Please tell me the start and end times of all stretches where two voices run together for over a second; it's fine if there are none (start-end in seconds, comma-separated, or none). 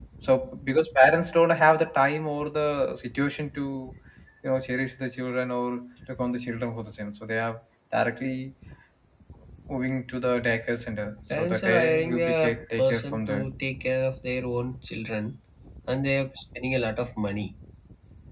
11.3-13.4